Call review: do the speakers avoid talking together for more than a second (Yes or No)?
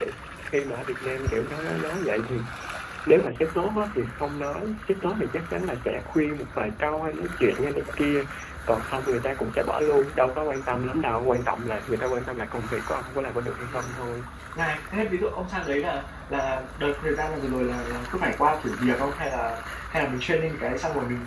Yes